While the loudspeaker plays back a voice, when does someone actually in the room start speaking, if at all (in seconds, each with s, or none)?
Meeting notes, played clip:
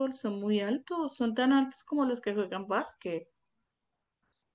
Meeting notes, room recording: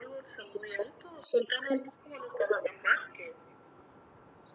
none